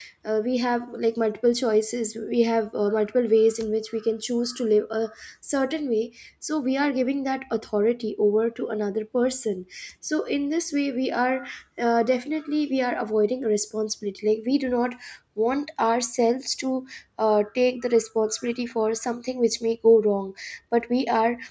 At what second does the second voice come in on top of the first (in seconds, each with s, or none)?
none